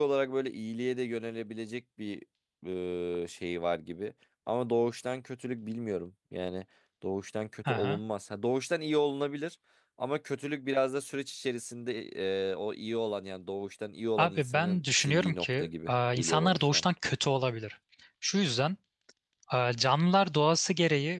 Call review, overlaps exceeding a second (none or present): present